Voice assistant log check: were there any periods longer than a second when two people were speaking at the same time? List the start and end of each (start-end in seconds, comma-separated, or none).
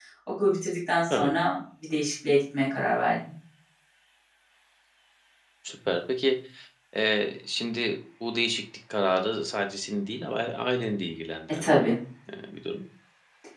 none